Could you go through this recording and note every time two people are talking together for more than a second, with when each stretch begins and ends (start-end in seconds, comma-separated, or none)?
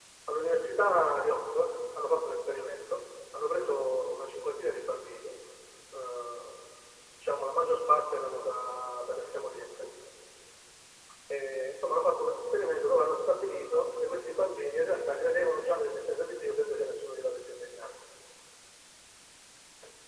none